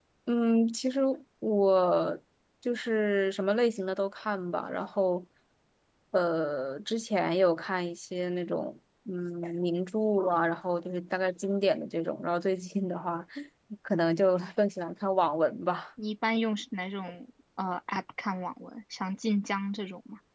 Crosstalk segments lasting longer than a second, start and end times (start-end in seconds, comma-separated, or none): none